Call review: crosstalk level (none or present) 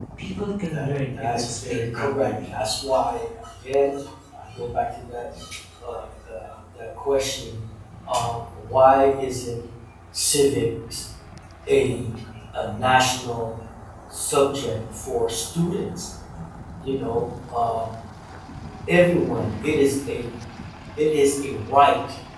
present